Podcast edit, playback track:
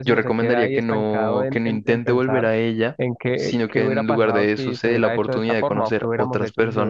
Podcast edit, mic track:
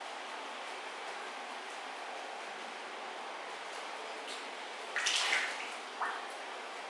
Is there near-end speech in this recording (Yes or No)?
No